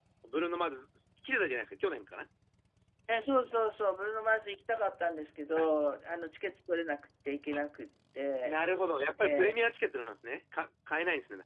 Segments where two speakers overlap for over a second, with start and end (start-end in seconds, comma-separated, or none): none